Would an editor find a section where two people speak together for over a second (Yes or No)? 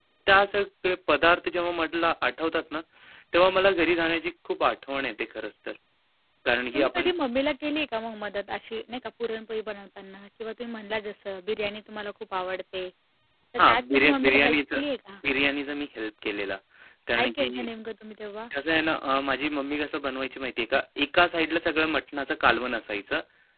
Yes